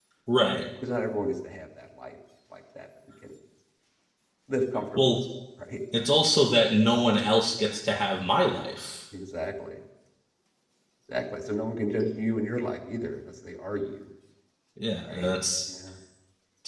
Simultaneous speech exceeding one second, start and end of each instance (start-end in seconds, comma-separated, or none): none